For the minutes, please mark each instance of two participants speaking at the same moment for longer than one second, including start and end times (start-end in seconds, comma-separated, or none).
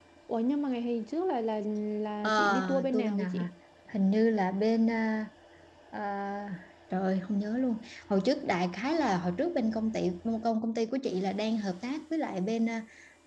2.2-3.5